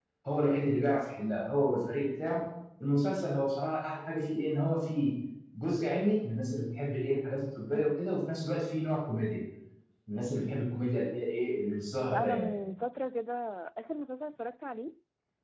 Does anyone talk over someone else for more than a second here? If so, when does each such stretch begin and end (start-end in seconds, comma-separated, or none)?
none